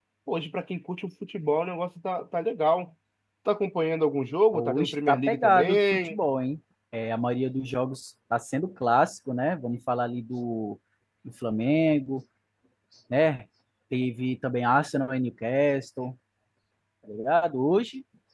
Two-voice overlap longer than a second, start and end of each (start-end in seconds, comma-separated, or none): 4.5-6.2